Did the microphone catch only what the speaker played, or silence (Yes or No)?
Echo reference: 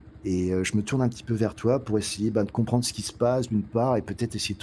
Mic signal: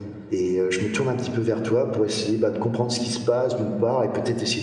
Yes